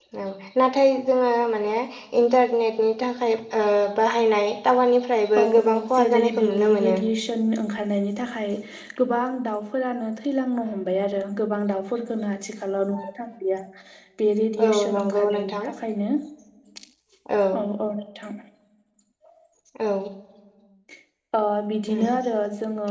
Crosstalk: present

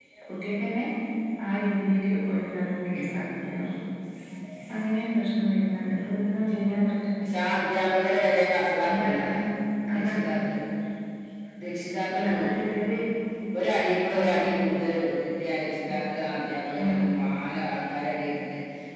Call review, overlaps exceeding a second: none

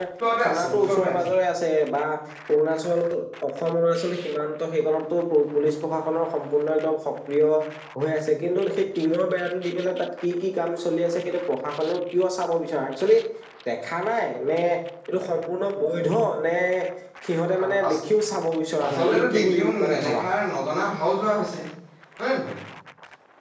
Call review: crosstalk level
present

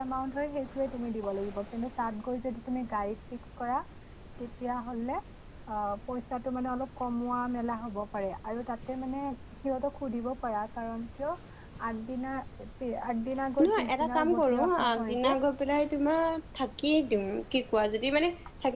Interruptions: present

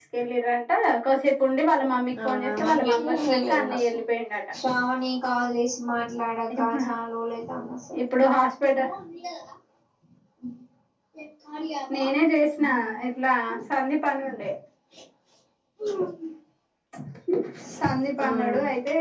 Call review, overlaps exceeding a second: present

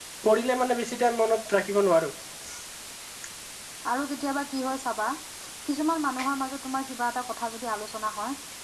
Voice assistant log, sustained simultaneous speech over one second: none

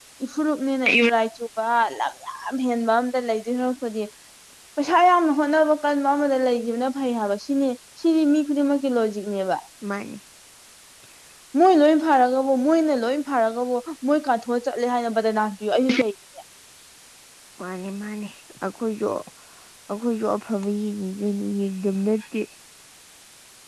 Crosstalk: none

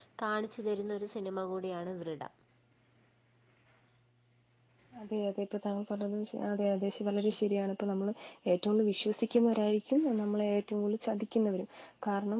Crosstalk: none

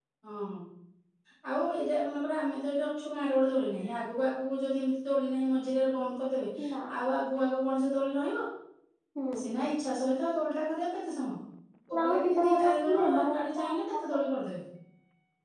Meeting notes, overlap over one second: present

